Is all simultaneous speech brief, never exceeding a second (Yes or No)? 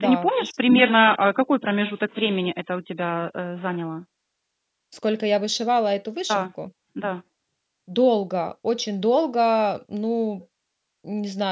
Yes